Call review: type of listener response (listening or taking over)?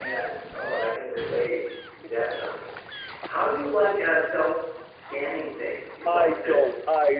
taking over